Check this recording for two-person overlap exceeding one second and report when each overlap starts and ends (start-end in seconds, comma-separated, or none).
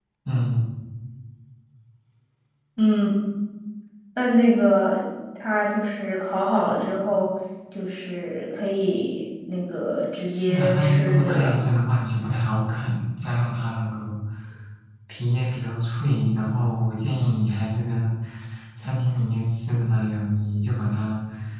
10.3-11.6